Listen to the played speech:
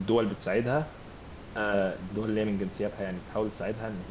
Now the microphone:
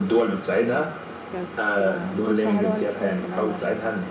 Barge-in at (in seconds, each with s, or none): 0.5 s